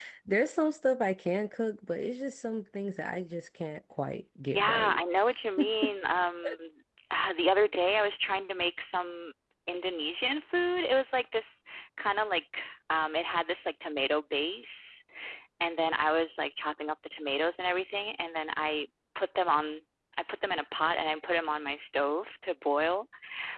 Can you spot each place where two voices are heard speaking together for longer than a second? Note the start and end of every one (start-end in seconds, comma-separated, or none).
none